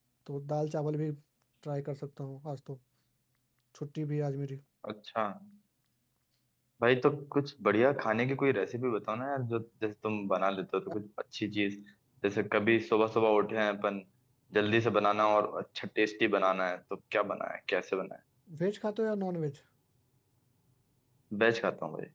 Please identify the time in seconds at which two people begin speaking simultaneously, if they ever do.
none

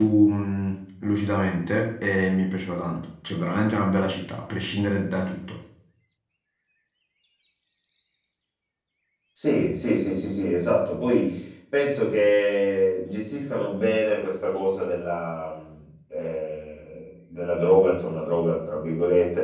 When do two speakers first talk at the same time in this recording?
none

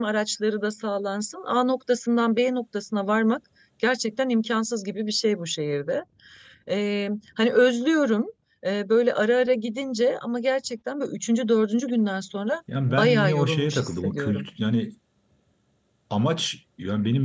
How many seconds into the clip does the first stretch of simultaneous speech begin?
12.7 s

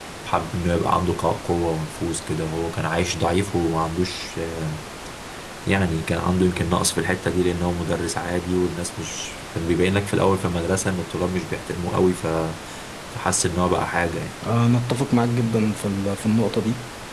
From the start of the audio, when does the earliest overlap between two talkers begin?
none

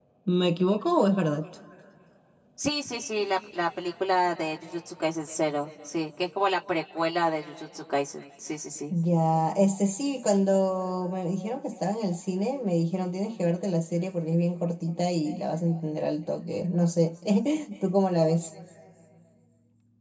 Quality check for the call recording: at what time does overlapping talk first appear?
none

